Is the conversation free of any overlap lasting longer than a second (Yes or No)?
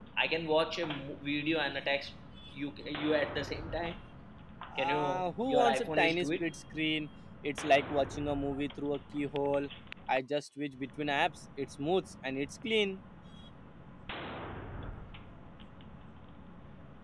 No